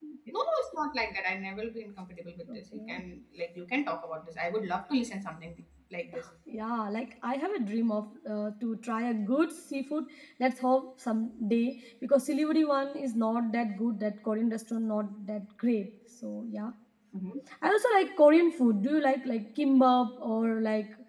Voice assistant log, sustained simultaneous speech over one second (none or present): none